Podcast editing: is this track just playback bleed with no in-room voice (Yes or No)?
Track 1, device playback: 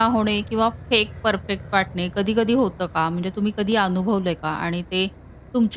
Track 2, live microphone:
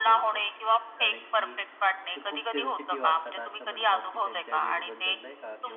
No